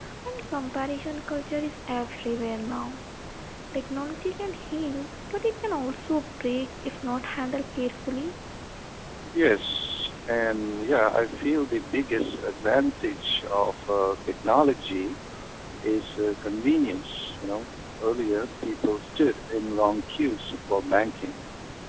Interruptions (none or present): none